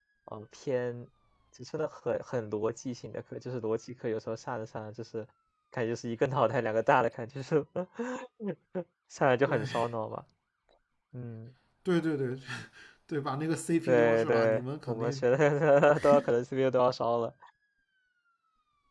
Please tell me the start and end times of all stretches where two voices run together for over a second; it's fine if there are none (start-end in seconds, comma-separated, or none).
13.9-15.2